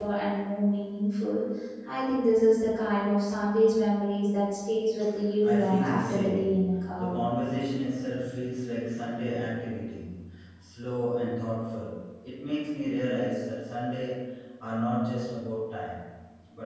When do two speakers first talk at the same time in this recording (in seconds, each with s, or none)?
5.4 s